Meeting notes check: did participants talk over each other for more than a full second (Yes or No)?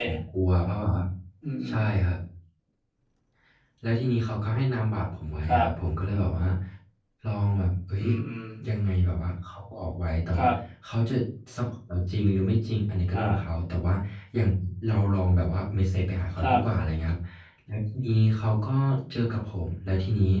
No